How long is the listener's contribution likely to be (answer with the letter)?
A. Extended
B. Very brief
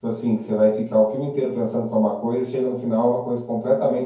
B